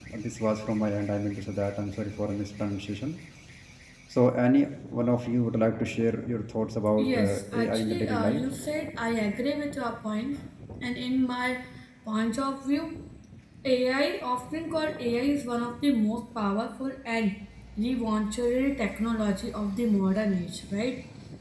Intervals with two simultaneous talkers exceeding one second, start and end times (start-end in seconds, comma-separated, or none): 7.0-8.4